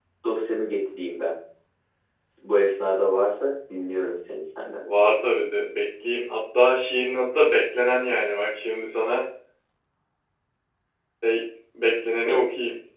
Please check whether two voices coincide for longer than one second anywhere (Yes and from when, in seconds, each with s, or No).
No